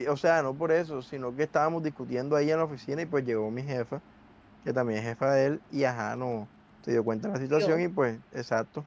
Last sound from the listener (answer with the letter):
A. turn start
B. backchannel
B